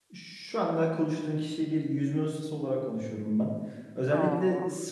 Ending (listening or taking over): listening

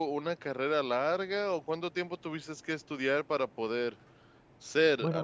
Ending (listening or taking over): taking over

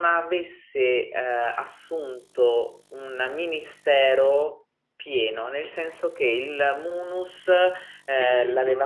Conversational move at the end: taking over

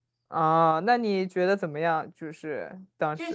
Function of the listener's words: taking over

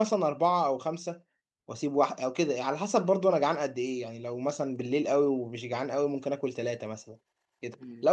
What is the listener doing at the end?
listening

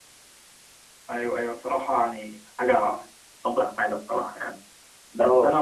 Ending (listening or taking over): listening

